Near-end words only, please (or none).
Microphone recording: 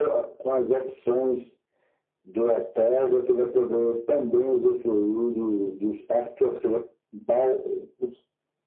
none